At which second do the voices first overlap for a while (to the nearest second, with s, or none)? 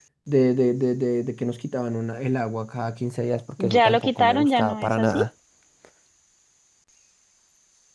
4 s